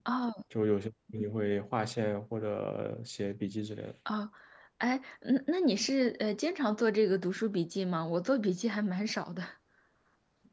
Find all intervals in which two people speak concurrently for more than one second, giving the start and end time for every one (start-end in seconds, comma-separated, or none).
none